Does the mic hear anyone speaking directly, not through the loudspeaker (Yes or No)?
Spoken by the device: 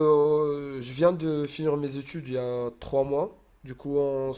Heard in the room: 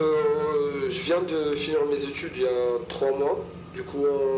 No